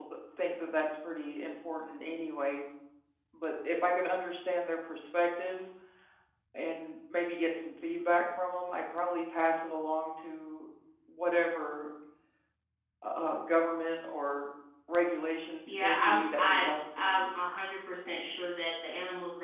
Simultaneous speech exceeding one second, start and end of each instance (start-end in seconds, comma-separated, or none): 15.7-17.3